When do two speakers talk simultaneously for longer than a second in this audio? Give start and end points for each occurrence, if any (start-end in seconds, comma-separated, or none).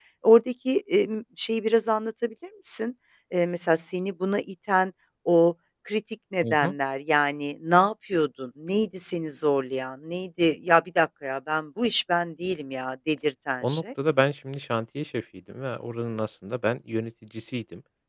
none